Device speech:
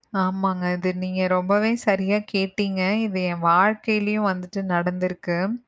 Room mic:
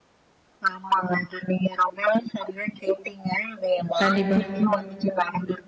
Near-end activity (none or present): present